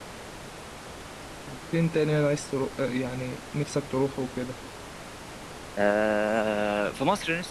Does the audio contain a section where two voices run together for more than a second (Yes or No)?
No